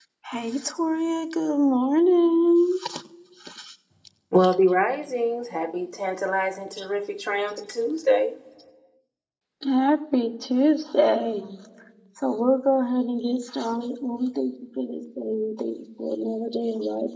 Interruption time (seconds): none

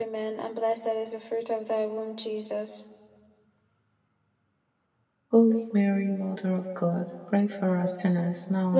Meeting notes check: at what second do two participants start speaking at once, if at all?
none

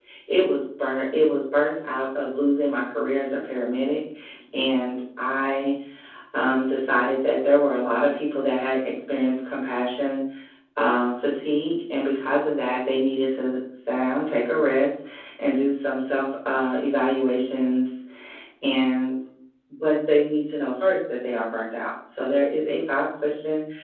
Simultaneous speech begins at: none

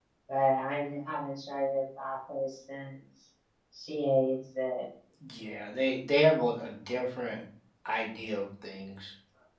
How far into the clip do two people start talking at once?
none

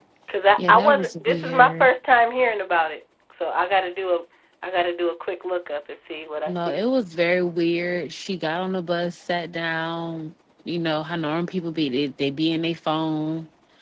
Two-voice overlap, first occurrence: 0.6 s

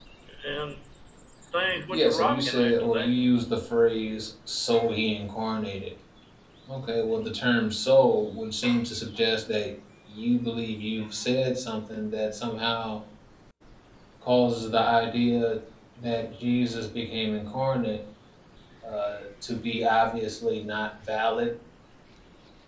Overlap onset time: 1.9 s

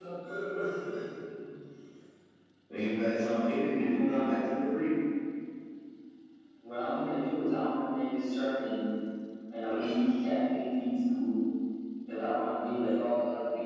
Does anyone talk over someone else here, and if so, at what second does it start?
3.0 s

